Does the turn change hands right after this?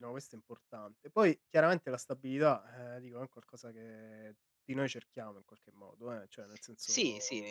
Yes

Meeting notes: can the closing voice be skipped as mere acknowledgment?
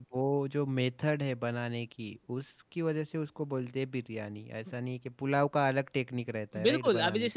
No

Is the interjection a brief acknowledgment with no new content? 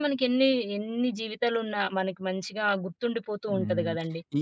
No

